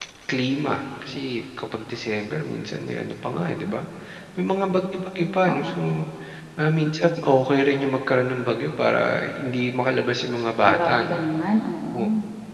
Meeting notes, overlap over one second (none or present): none